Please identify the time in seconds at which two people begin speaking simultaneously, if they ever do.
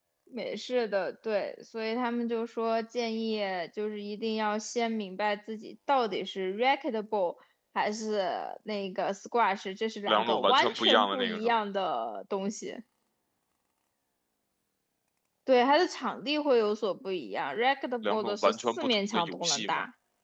10 s

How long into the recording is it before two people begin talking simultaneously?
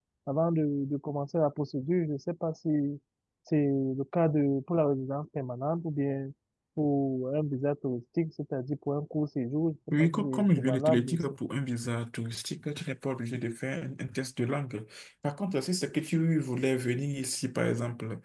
10 s

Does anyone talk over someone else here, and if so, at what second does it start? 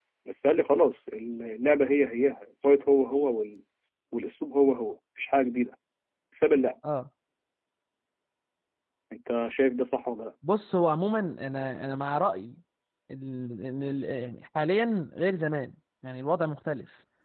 none

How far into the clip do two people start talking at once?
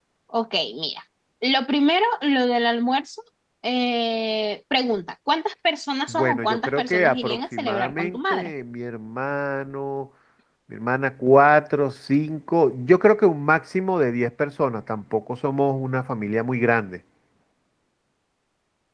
6 s

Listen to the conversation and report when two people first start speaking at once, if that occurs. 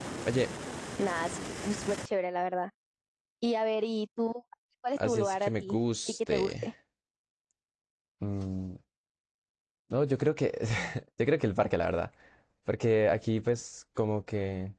5 s

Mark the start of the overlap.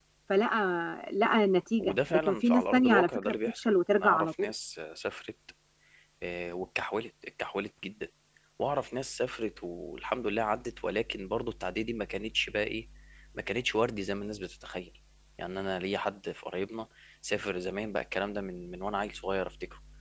2 s

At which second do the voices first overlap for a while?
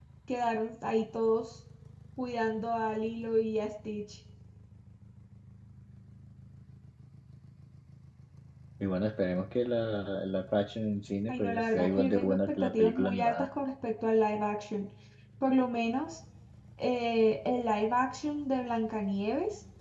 11 s

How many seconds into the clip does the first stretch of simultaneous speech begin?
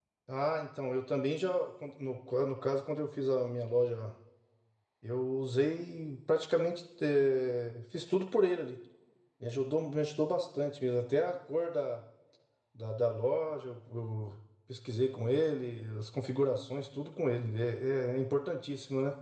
none

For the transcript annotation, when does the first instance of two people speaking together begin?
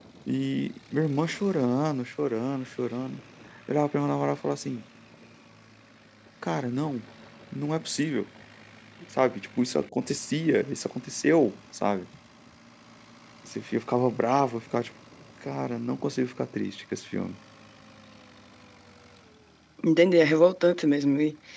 none

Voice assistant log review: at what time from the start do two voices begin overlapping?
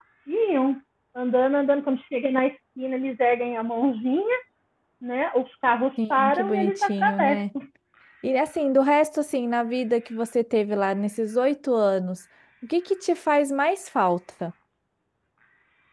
6 s

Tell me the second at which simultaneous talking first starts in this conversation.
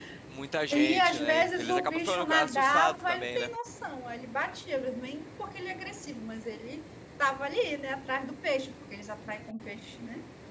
1 s

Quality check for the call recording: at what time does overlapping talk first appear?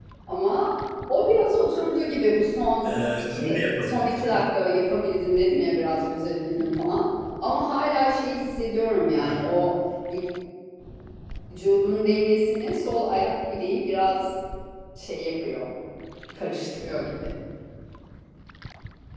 3 s

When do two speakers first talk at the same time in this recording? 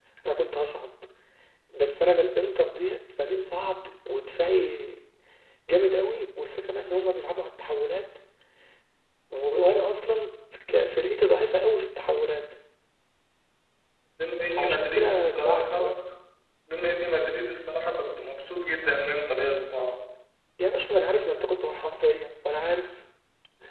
15 s

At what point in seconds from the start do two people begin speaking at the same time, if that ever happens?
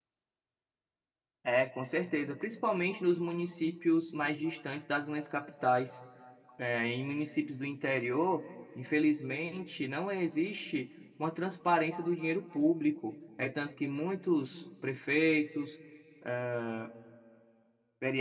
none

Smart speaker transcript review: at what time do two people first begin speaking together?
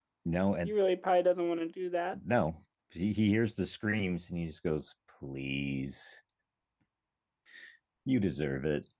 none

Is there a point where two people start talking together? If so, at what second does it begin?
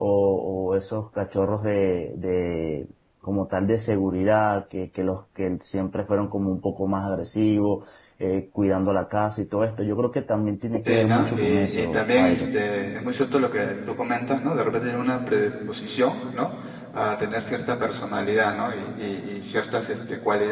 11 s

